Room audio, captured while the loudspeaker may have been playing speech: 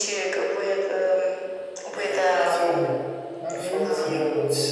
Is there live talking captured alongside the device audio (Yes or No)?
Yes